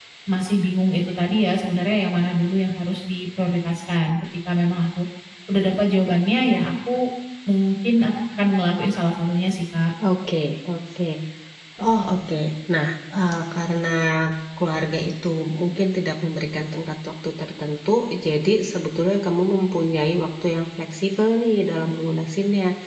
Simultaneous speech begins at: none

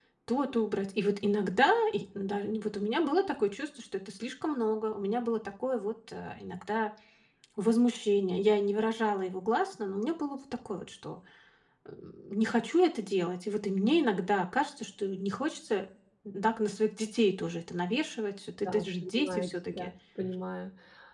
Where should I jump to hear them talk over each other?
18.6 s

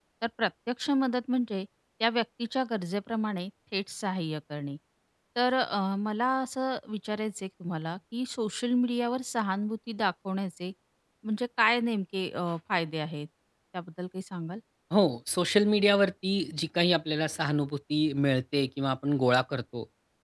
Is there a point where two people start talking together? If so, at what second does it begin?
none

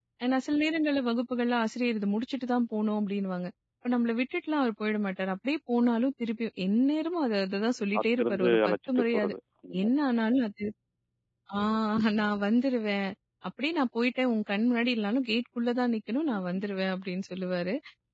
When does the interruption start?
8.0 s

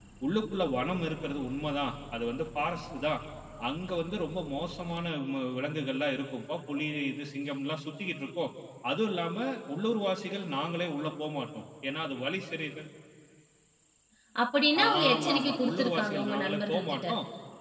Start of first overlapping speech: 14.9 s

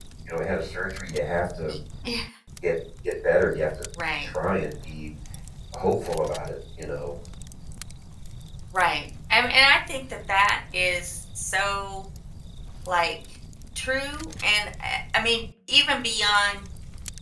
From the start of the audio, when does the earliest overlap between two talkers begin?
none

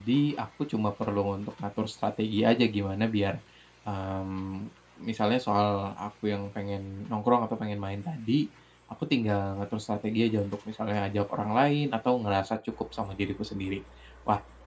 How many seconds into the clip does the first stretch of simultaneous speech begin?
none

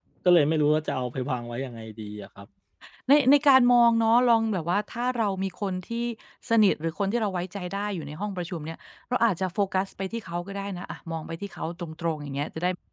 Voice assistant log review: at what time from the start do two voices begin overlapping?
none

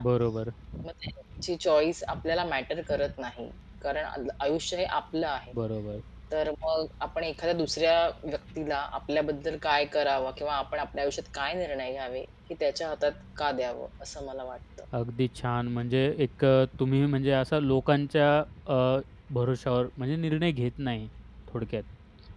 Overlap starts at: none

